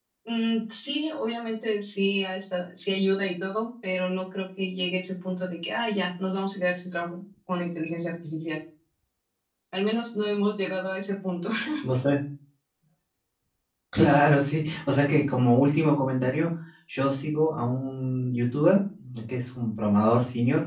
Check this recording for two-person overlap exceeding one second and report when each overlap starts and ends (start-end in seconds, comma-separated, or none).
none